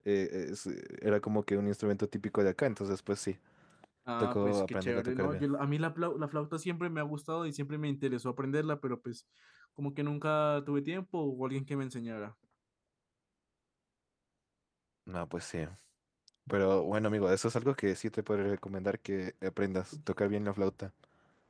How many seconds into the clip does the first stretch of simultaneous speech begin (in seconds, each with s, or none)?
4.2 s